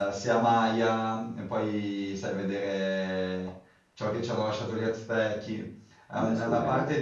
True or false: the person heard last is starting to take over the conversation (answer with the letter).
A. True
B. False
B